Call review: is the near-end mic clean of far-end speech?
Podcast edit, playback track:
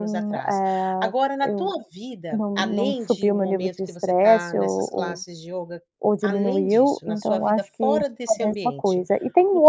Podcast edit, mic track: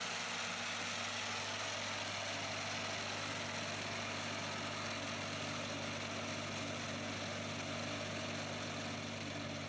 Yes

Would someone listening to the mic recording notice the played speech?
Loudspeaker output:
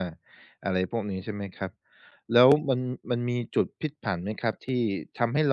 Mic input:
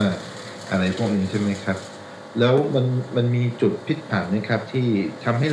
Yes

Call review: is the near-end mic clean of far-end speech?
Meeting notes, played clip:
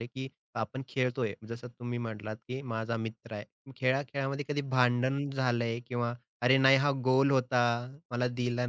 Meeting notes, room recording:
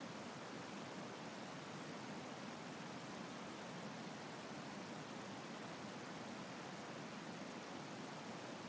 Yes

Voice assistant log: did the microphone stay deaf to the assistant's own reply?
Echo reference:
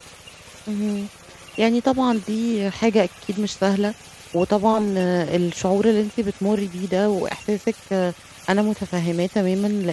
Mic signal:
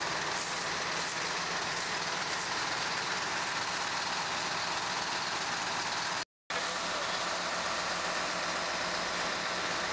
Yes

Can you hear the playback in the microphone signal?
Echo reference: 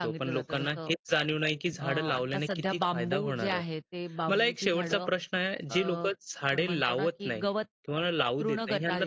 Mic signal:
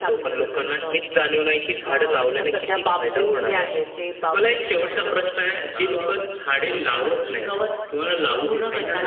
Yes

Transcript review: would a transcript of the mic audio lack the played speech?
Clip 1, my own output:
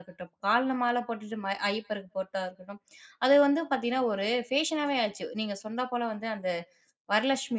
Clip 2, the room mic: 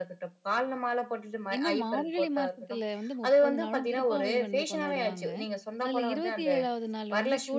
No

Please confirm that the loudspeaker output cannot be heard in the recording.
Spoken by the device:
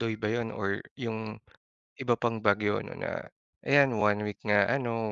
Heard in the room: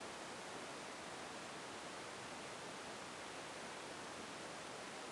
Yes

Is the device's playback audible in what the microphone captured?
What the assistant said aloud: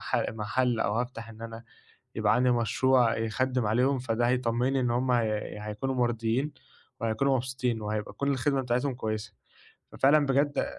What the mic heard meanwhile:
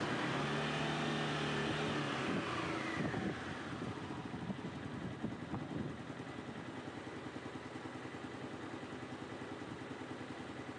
No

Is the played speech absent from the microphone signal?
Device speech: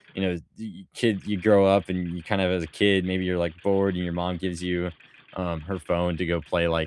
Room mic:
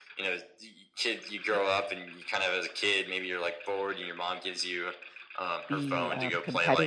No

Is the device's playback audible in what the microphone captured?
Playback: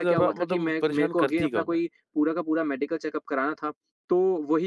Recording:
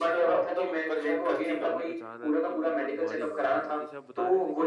Yes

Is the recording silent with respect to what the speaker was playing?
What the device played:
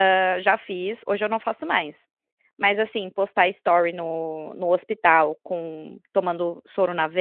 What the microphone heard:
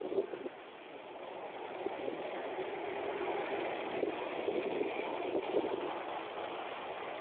Yes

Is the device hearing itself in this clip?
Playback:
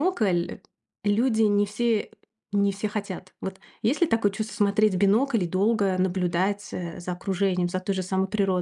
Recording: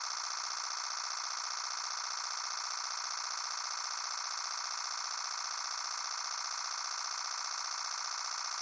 No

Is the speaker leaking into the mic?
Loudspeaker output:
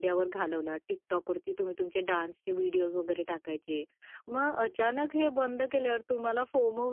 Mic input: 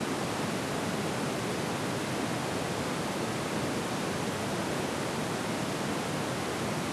No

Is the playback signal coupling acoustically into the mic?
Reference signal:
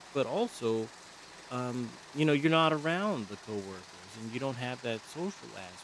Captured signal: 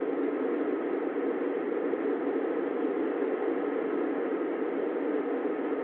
No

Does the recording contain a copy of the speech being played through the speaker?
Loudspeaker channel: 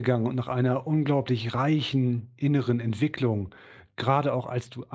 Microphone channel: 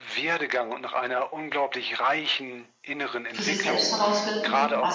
Yes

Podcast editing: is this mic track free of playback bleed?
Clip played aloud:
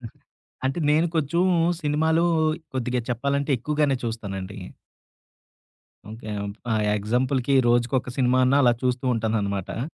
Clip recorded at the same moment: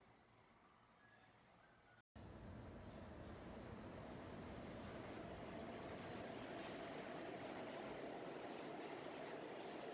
Yes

